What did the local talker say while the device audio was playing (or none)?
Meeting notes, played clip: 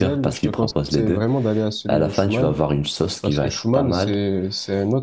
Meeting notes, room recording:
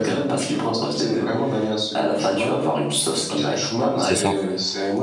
C'est ça.